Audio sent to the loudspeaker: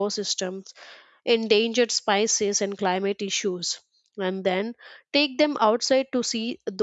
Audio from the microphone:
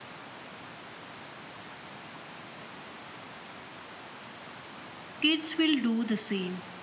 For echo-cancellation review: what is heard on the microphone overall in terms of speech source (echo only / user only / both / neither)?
user only